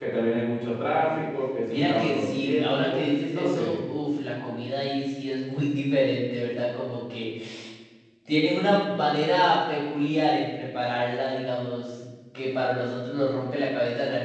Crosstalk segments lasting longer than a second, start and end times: 1.7-3.7

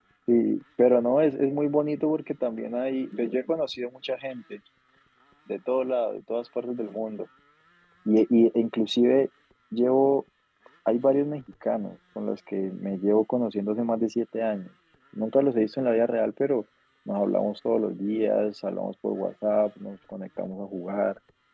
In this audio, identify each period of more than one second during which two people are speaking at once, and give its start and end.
none

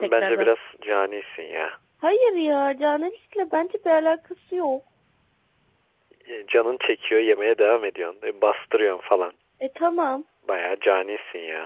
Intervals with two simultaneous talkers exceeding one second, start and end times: none

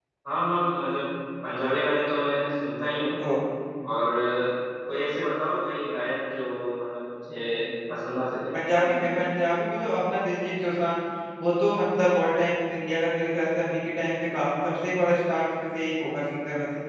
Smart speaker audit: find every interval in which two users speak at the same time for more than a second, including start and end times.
none

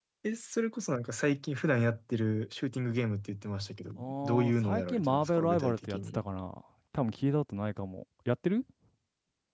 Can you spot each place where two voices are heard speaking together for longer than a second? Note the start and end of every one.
4.0-6.2

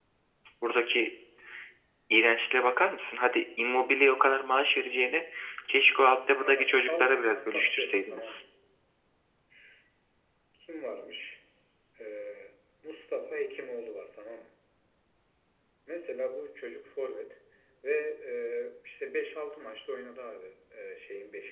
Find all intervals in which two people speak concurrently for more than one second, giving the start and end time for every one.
6.4-8.4

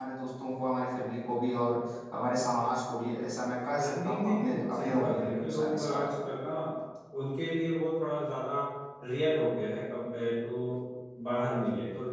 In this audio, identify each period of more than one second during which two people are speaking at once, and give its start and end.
3.8-6.1

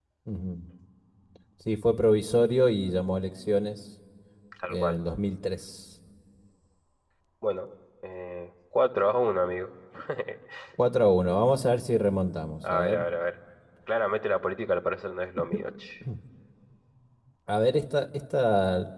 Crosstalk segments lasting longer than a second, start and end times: none

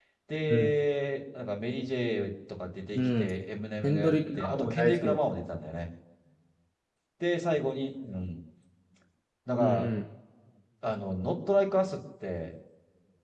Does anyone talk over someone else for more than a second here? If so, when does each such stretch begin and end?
3.8-5.2

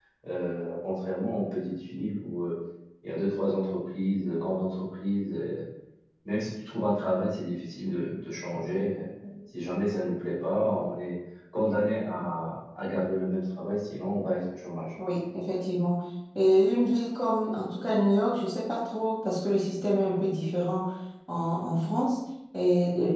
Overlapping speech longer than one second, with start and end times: none

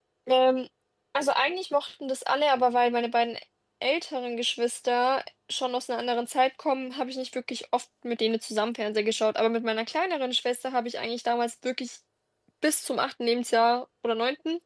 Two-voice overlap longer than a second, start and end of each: none

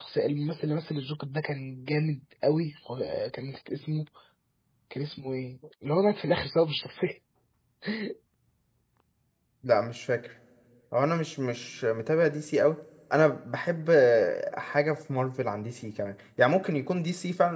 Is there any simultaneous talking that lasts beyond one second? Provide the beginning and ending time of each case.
none

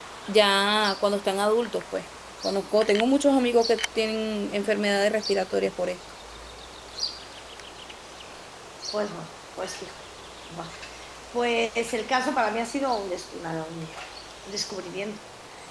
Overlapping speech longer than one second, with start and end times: none

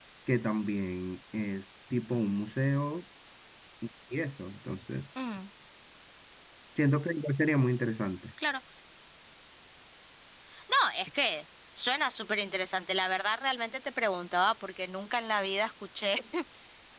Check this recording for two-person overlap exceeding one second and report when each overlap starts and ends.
none

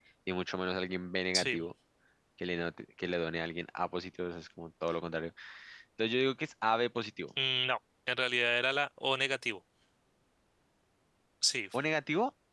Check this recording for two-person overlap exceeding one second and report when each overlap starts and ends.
none

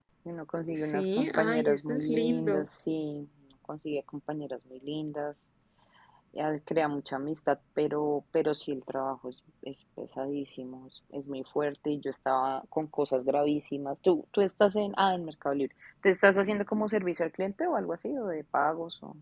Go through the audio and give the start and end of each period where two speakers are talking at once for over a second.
0.8-2.7

